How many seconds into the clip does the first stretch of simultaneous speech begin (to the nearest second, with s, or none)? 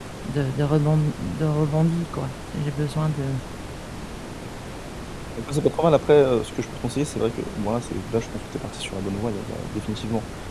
none